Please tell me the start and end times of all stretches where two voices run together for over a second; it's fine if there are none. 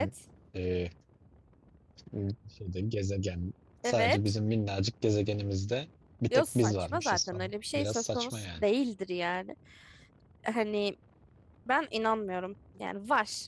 6.3-8.7

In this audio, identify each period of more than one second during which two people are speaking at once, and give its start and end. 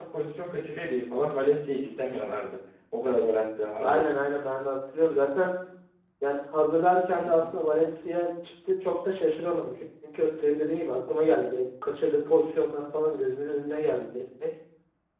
none

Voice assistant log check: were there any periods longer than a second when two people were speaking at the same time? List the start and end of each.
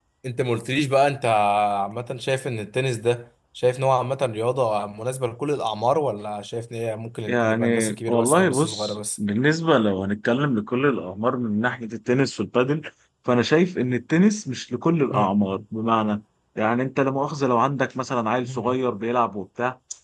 7.3-9.0

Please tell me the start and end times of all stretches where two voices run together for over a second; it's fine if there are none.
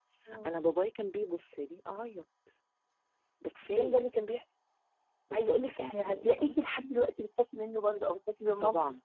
5.3-6.5

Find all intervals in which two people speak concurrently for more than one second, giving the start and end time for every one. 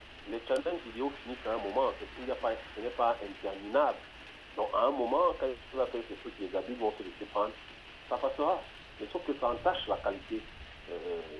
none

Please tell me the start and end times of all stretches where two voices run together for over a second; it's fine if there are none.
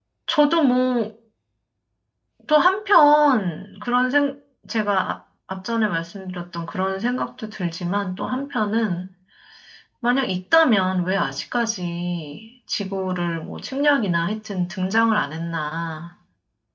none

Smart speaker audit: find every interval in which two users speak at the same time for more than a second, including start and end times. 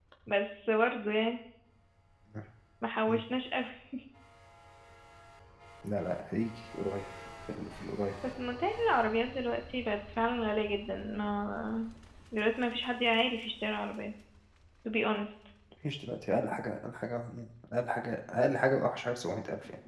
none

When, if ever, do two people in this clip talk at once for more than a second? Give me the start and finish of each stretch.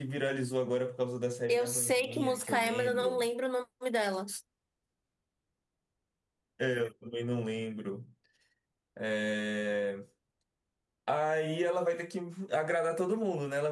1.5-3.3

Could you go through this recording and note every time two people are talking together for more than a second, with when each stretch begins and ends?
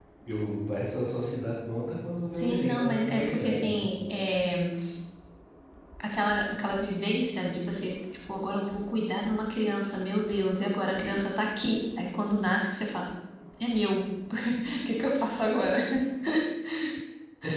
2.3-3.9

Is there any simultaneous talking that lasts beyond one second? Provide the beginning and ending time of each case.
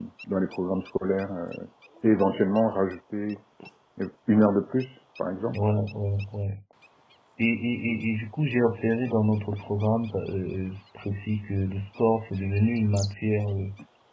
none

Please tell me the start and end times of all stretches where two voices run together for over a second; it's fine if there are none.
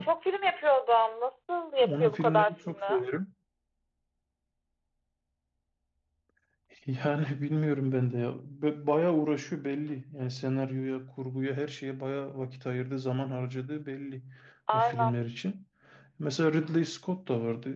1.8-3.0

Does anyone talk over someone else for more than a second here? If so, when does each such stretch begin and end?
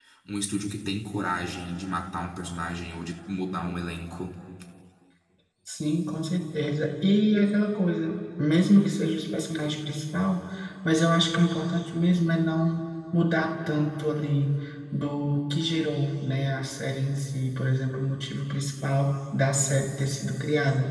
none

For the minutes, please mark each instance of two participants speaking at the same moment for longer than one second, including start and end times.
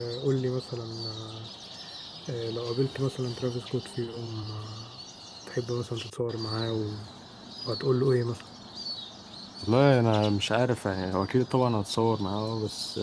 none

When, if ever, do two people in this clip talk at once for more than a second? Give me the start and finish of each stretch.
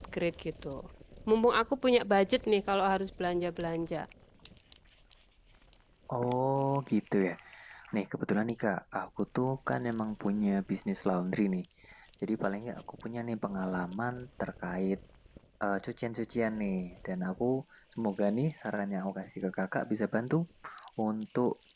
none

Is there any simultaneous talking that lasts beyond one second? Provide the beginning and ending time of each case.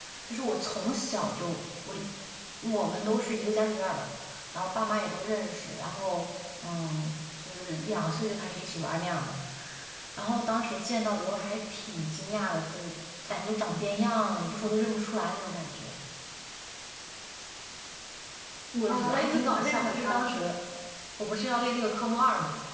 18.9-20.4

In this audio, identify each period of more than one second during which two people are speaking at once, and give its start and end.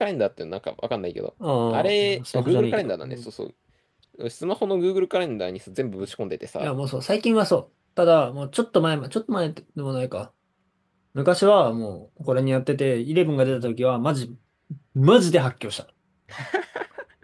1.7-3.2

